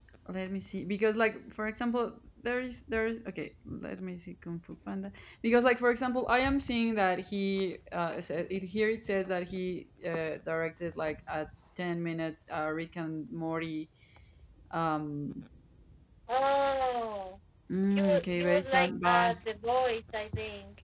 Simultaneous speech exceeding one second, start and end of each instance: 17.9-19.3

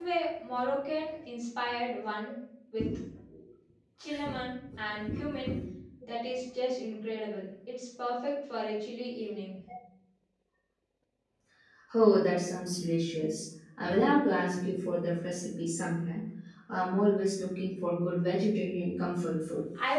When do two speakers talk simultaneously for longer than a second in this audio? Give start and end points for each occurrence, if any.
none

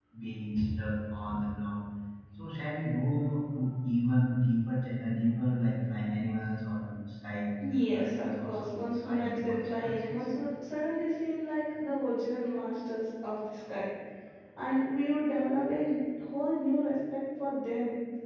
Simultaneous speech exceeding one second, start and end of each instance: 7.7-10.2

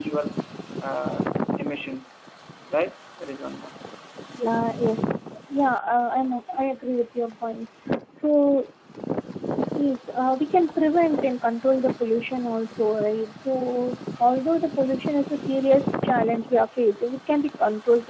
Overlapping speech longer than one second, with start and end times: none

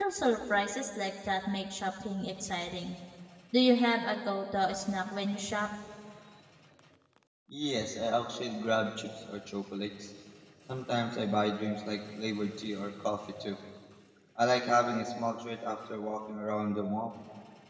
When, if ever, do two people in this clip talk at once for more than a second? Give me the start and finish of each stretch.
none

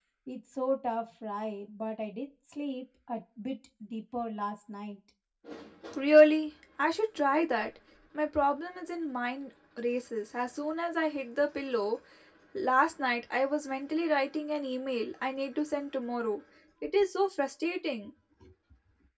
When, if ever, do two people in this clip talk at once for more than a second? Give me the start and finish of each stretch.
none

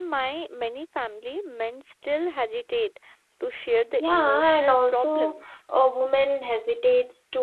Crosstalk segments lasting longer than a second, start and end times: 4.0-5.4

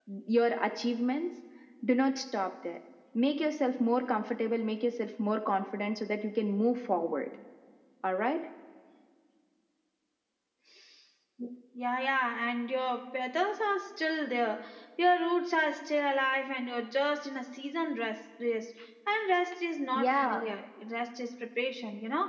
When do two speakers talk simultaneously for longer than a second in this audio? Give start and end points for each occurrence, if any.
none

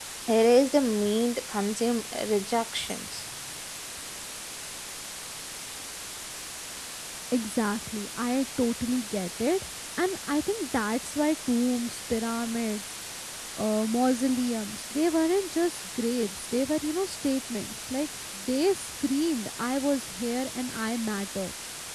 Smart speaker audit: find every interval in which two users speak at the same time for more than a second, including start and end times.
none

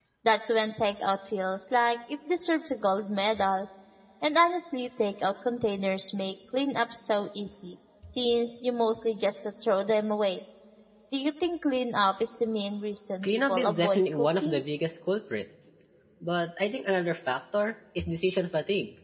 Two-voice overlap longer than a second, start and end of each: 13.2-14.6

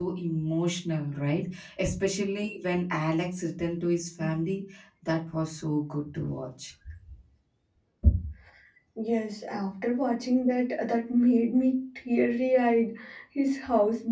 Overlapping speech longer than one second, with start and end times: none

